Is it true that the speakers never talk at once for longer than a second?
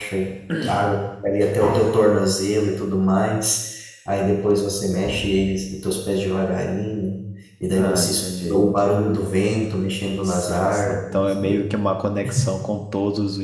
No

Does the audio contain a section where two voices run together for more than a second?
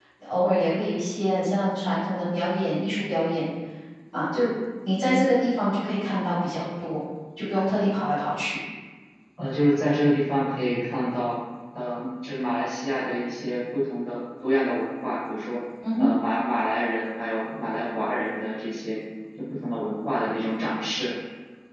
No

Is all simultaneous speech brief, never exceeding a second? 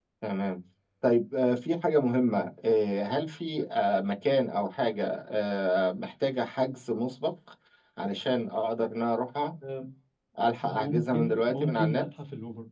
No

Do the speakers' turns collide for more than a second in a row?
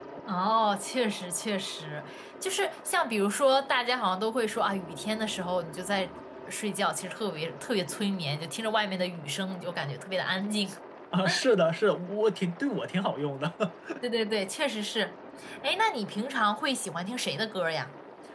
No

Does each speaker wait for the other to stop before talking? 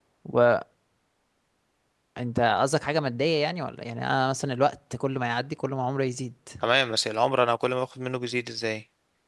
Yes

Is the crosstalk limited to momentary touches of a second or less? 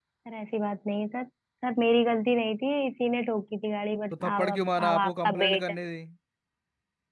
No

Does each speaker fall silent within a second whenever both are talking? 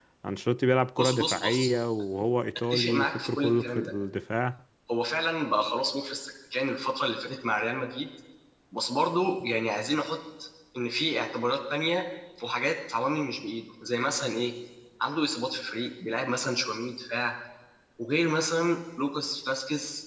No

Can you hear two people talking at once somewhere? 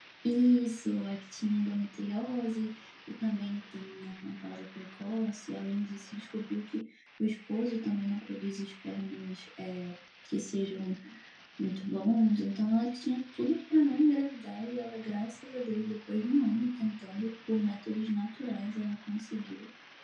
No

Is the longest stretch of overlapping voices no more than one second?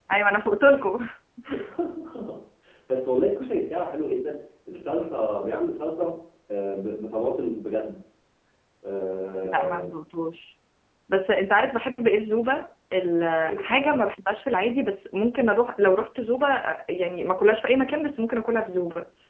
Yes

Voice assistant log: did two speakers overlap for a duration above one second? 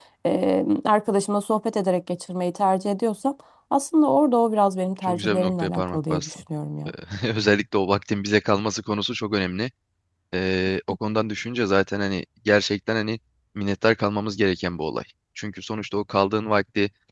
Yes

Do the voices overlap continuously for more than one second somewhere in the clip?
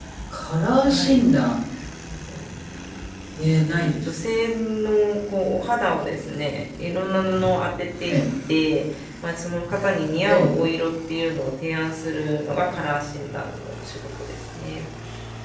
No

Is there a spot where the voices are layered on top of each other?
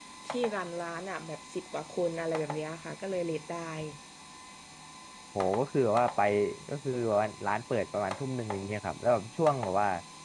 No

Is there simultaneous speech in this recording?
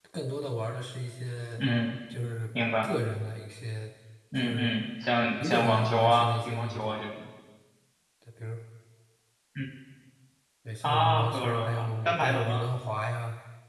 Yes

